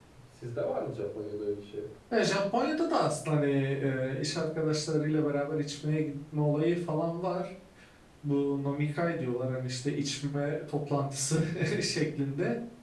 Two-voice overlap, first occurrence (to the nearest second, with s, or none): none